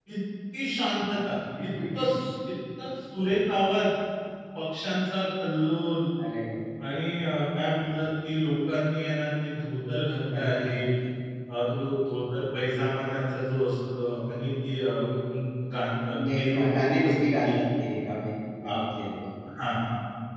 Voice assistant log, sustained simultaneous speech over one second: present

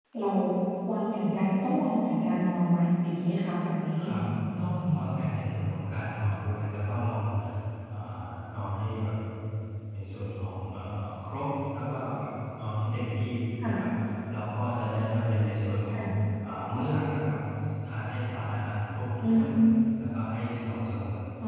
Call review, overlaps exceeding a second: none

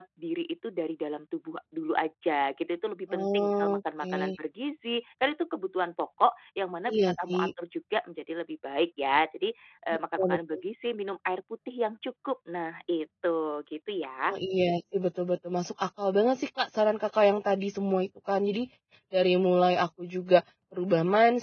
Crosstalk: present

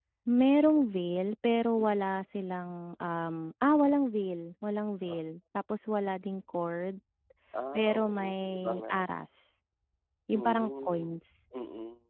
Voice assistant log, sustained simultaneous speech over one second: present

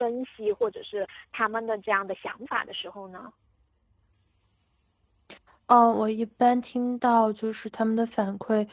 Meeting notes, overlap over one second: none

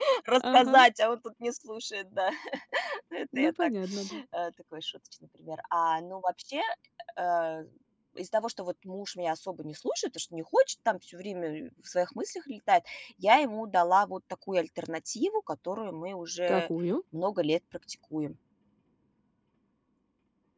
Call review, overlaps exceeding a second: none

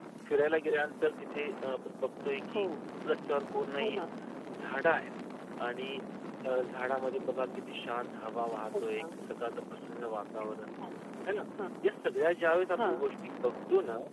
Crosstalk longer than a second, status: none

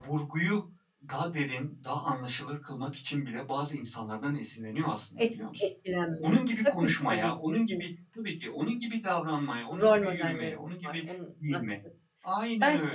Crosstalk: present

